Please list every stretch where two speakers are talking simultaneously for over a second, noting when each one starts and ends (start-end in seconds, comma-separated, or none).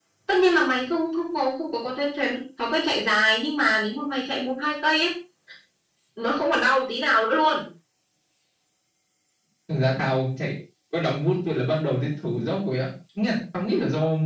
none